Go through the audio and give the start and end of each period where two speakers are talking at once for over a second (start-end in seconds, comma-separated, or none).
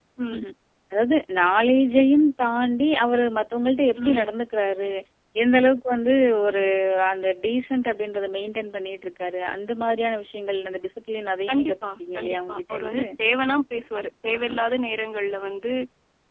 11.5-13.0